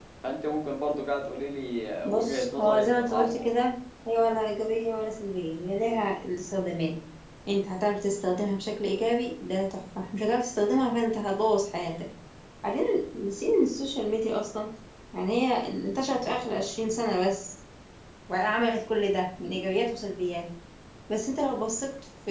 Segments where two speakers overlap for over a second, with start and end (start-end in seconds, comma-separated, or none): 2.0-3.4